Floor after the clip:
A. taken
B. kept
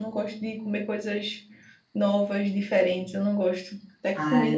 A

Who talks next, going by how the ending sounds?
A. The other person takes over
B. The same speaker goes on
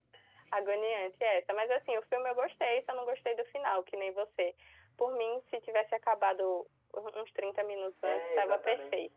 A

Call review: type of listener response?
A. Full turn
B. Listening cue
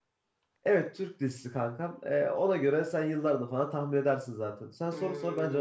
A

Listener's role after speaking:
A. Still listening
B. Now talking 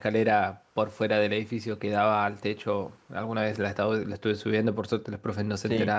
A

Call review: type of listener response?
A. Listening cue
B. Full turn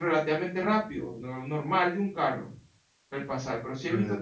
B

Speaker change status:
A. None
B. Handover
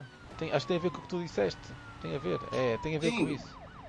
B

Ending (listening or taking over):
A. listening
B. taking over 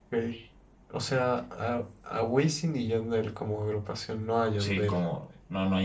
B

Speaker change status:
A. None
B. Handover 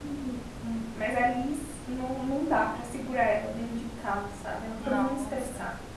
B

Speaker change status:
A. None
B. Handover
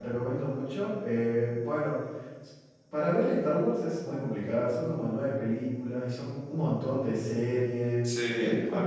A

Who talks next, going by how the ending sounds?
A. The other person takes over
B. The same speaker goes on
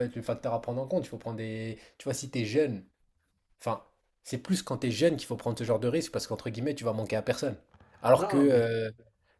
B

